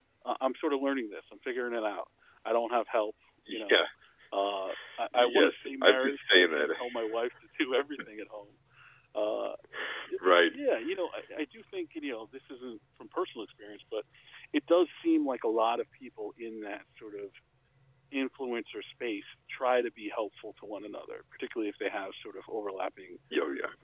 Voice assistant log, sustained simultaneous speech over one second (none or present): present